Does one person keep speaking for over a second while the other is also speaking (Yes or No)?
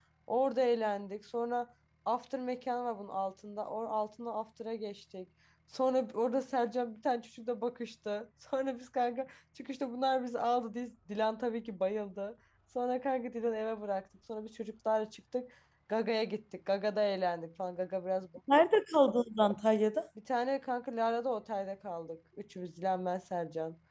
No